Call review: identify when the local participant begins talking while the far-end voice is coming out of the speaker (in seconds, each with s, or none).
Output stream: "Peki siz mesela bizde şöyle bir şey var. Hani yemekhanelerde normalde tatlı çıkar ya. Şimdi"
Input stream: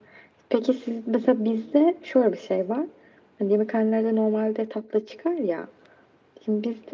none